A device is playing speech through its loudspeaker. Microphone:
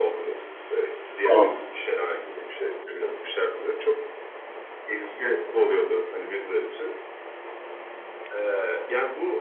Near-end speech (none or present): present